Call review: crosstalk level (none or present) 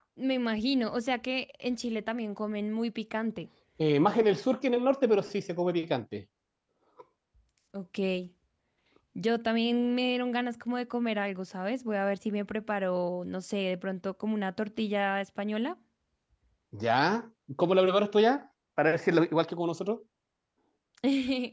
none